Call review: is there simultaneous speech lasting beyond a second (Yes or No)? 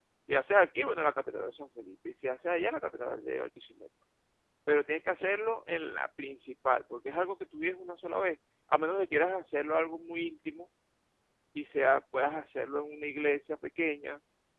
No